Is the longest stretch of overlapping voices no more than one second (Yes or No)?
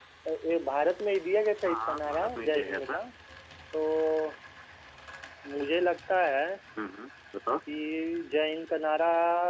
No